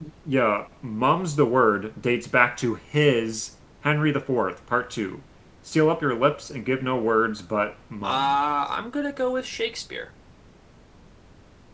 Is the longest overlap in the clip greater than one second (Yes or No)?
No